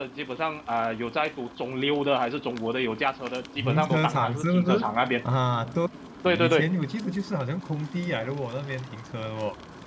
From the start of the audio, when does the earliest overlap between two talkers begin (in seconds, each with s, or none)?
3.6 s